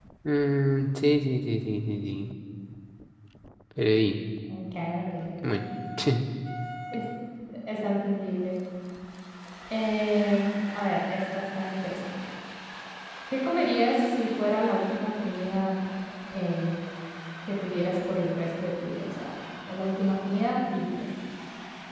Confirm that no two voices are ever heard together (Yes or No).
Yes